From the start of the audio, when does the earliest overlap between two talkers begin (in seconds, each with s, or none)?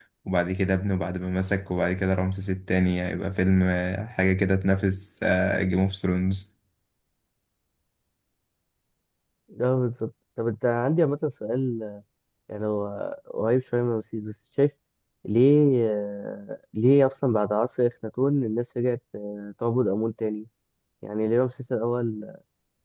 none